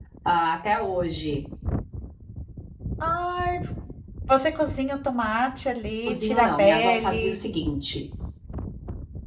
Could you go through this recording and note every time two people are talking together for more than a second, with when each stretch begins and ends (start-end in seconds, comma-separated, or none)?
6.1-7.4